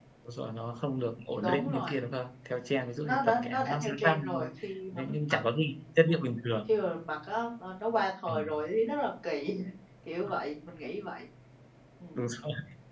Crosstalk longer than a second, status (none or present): present